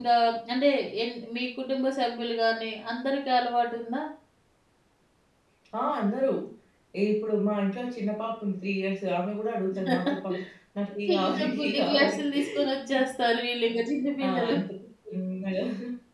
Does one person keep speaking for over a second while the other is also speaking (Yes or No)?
Yes